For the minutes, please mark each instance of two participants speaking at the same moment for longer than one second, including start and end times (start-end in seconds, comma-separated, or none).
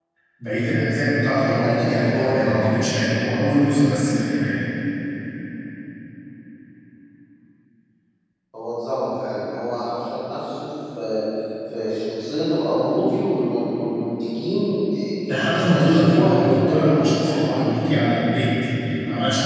1.4-2.7, 15.5-17.7